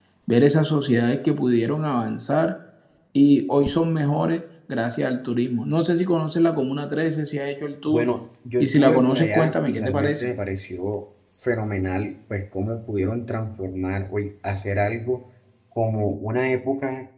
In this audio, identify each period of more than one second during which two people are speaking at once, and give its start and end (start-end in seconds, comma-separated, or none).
8.6-10.3